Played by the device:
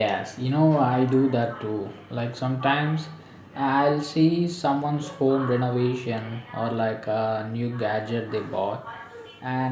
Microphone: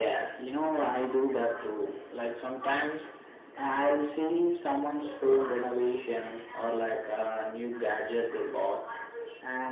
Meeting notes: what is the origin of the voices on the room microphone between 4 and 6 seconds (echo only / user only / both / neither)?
echo only